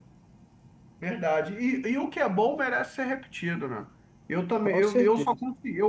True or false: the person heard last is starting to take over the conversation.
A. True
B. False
B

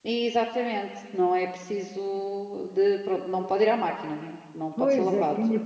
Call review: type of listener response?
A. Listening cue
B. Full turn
B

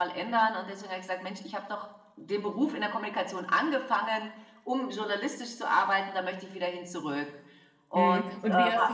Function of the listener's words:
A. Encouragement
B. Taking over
B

